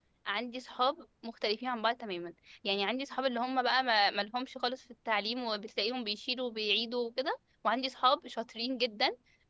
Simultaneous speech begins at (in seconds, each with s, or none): none